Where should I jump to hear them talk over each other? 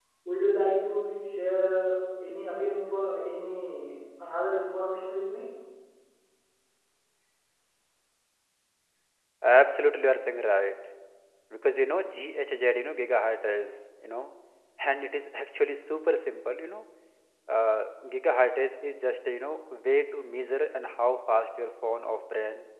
none

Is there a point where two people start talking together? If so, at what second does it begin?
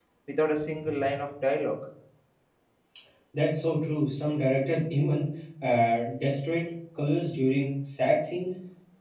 none

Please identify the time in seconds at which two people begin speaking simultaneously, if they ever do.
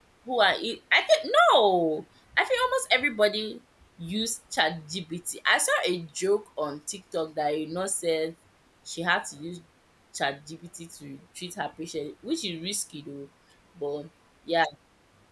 none

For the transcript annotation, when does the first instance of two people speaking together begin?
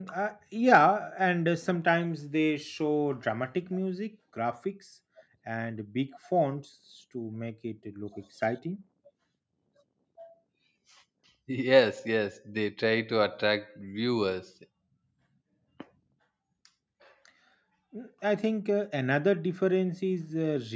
none

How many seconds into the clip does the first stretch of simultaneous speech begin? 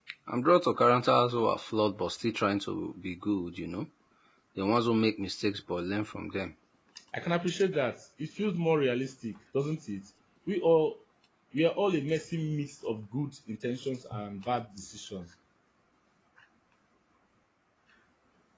none

